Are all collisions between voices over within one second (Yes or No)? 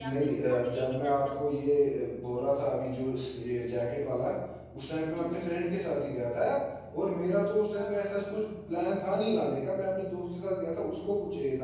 No